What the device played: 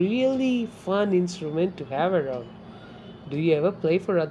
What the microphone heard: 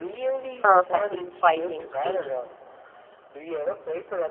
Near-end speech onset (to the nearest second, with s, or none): 1 s